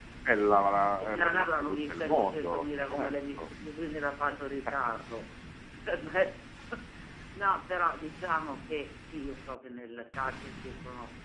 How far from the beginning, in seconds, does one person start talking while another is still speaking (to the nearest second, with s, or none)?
1 s